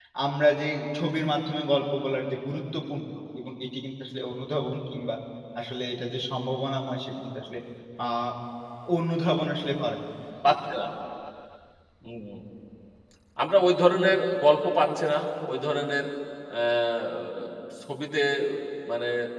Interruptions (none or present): none